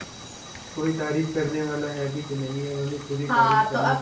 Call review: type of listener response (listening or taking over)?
taking over